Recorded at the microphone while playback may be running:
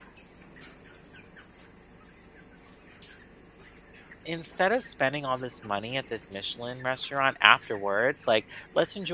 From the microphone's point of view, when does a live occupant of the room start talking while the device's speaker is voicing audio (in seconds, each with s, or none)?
4.2 s